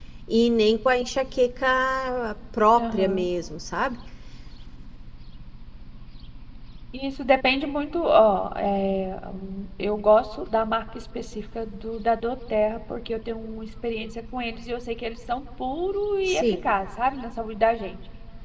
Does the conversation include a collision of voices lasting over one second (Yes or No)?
No